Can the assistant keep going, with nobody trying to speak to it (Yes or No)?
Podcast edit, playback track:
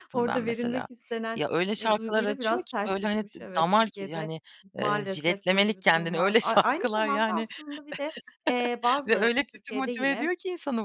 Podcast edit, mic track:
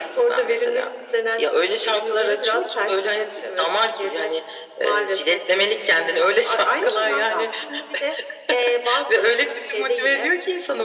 Yes